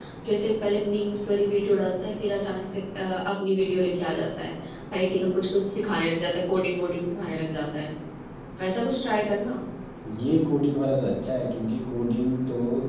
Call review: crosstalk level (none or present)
none